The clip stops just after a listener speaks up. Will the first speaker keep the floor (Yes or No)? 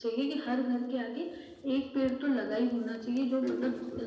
Yes